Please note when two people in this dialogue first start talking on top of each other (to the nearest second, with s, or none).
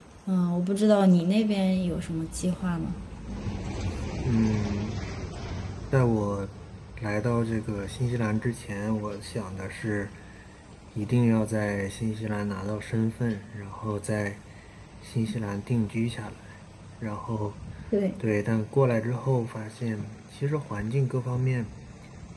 none